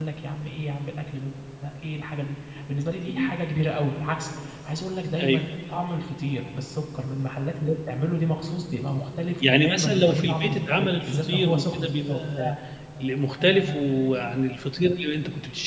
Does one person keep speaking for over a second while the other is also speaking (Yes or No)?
Yes